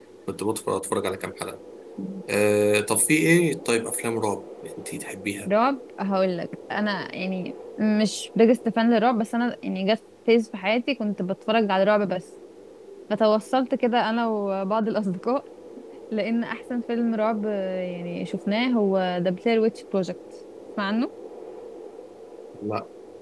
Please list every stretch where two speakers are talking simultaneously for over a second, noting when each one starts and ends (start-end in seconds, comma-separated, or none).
none